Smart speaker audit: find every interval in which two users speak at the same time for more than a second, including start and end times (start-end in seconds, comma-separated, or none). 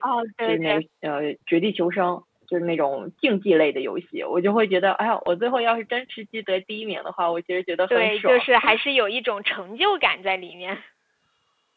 none